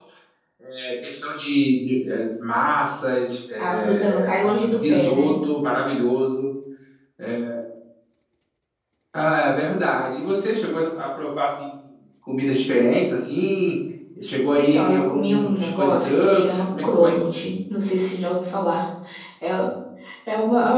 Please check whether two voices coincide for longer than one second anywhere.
Yes, from 3.6 s

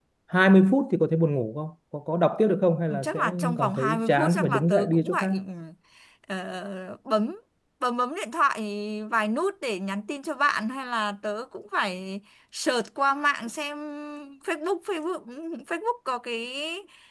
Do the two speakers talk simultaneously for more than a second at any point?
Yes, from 2.9 s

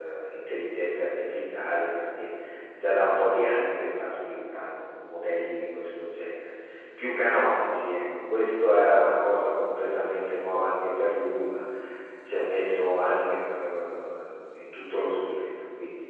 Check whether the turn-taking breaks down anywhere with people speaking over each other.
No

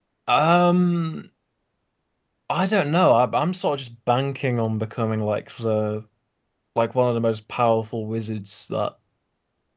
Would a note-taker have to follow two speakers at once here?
No

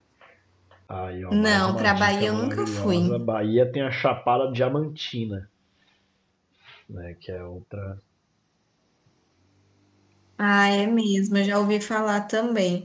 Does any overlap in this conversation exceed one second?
Yes, from 1.3 s

